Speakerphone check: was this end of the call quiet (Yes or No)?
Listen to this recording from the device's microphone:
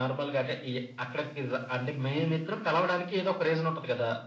Yes